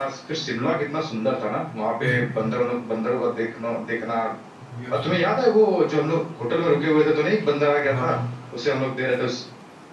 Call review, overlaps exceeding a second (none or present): none